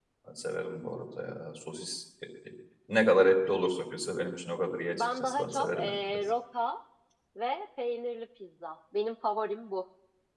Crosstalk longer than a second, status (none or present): present